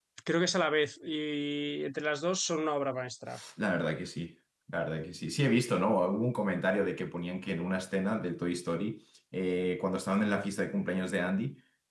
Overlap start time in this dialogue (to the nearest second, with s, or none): none